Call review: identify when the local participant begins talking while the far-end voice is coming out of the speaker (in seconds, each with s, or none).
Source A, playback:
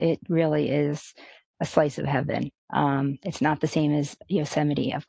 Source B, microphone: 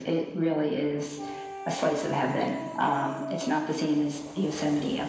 none